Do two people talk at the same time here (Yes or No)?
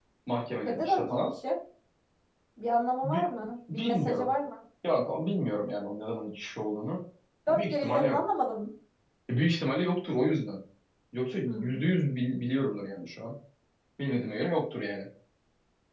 Yes